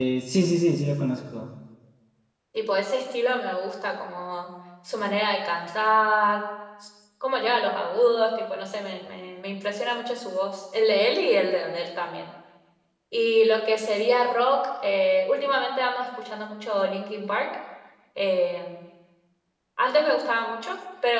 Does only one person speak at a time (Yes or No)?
Yes